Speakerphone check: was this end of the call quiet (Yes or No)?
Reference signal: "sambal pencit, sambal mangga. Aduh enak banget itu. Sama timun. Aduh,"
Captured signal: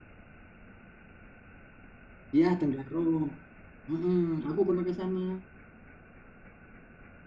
No